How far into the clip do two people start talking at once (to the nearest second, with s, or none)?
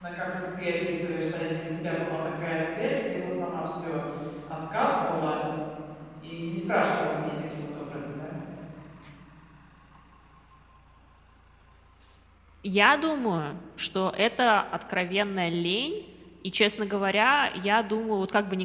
none